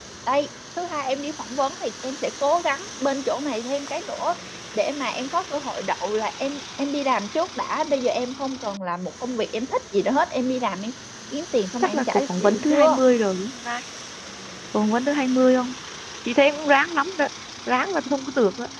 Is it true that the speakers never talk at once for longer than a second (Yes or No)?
No